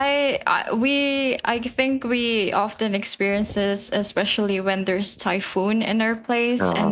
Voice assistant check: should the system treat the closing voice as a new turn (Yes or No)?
No